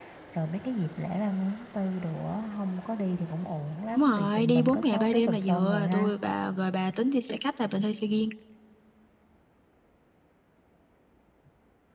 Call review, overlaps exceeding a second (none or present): present